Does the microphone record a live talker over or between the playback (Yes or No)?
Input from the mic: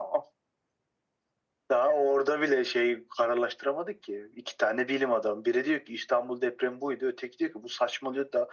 No